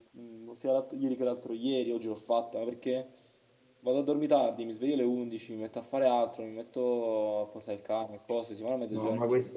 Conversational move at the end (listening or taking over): taking over